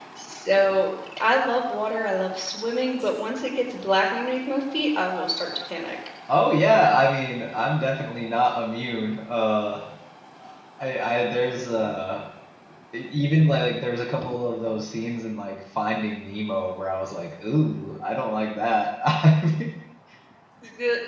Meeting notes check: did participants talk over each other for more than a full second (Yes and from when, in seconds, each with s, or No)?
No